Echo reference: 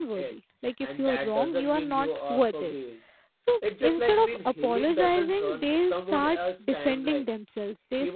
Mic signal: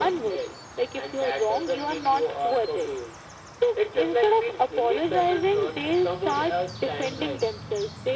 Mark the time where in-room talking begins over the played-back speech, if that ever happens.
none

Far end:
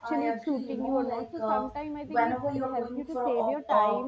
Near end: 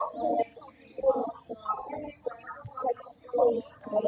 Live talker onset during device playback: none

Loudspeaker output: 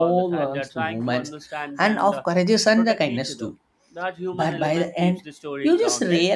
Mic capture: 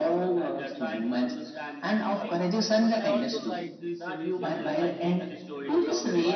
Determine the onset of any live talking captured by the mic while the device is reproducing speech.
2.1 s

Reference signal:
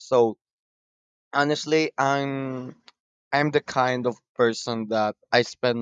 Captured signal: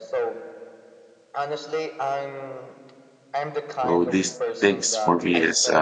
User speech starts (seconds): 3.8 s

